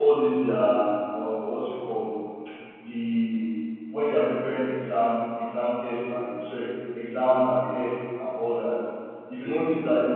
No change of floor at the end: Yes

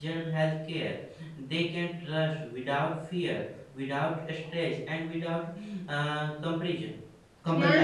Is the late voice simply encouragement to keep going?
No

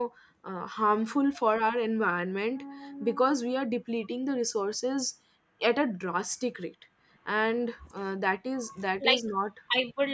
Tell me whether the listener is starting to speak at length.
Yes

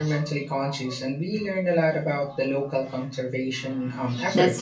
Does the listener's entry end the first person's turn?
Yes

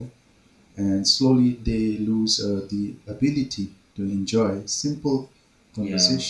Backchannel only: Yes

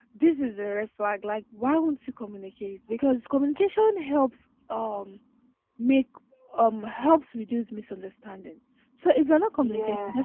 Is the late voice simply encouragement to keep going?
Yes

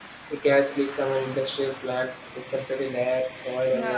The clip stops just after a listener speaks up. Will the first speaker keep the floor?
Yes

